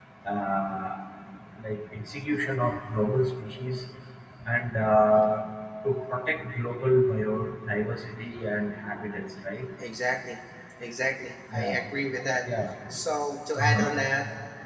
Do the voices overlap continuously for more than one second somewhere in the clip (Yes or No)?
No